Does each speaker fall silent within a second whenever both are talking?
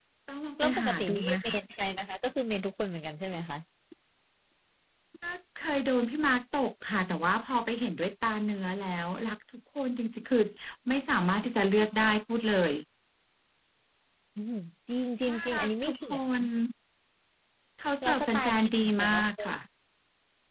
No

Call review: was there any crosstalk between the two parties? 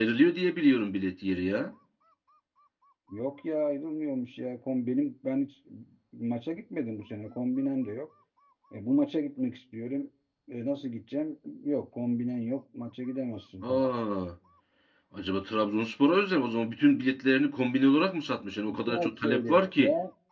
Yes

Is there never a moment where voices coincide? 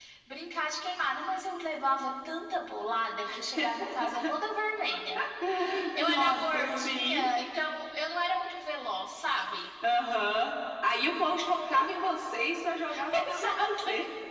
No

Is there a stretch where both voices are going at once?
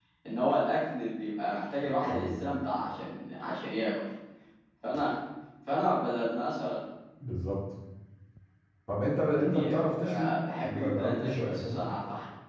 Yes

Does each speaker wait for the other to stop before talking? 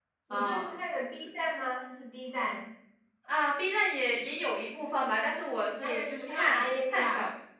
No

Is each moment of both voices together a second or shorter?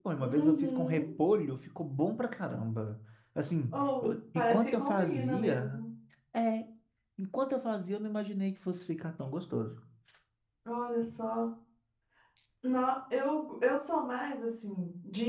No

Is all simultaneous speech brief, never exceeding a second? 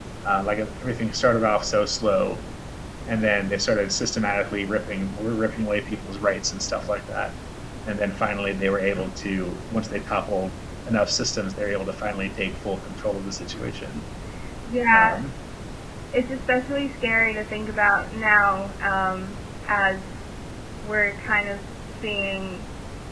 Yes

